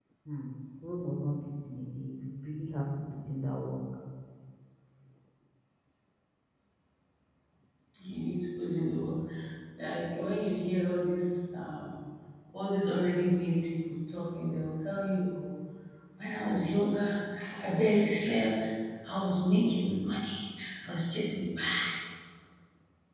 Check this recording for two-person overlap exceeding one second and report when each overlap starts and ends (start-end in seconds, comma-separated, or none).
none